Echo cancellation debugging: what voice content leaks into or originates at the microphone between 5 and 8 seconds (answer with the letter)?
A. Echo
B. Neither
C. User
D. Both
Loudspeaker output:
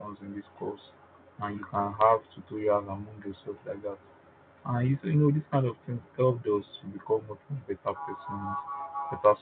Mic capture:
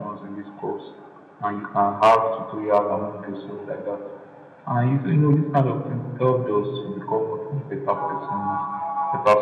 A